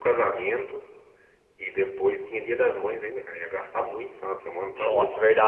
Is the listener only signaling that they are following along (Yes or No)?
No